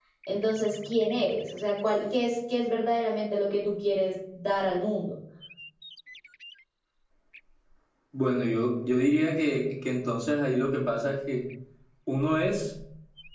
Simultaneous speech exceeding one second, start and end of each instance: none

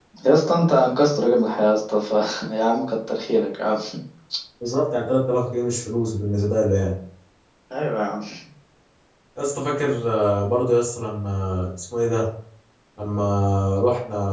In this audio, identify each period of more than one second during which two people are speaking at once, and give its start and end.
none

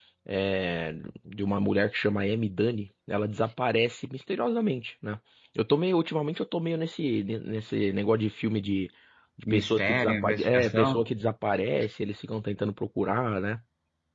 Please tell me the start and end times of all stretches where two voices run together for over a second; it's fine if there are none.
9.5-11.1

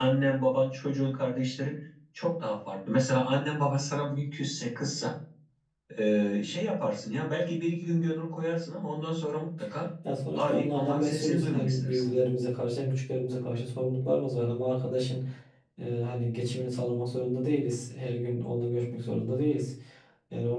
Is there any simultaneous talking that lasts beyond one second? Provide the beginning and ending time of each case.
10.4-12.1

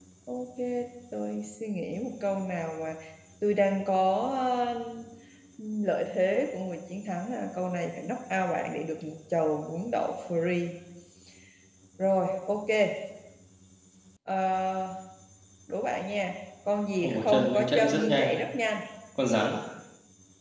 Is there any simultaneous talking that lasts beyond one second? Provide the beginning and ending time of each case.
17.0-18.3

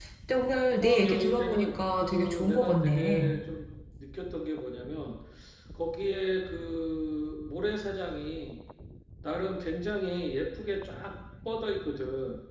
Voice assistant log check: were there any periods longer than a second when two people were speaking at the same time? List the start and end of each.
0.8-3.4

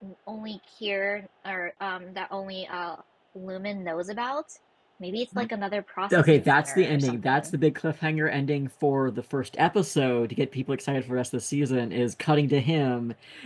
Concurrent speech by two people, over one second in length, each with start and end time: 6.1-7.5

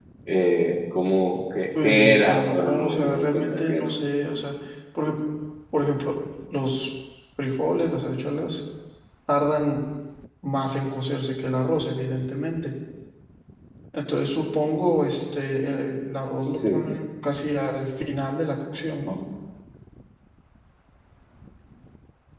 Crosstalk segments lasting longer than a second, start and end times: 1.8-4.0

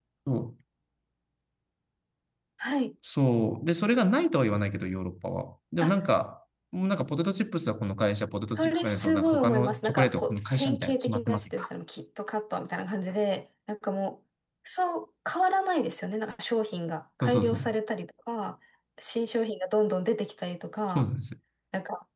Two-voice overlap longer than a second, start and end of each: 8.6-11.7

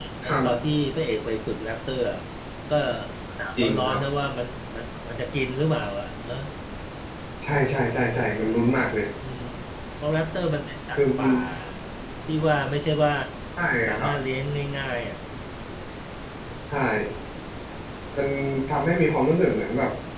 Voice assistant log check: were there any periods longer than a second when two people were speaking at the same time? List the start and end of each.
none

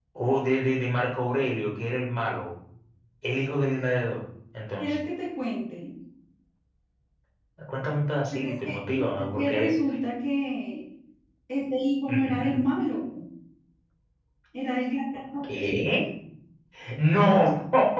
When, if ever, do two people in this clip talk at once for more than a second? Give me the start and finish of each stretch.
8.3-9.8

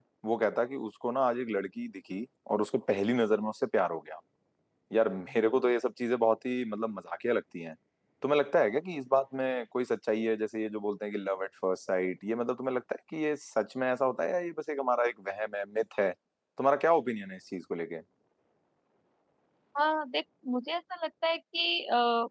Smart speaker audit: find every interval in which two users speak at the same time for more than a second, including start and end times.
none

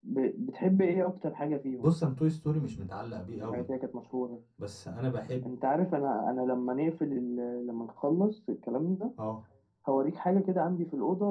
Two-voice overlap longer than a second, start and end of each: none

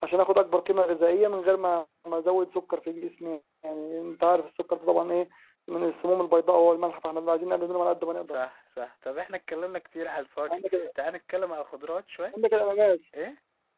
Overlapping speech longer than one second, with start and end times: none

